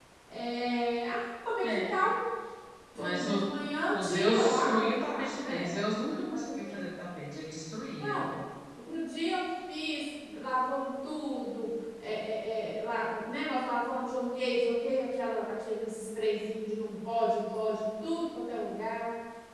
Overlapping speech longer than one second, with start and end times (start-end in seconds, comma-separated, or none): 3.9-5.7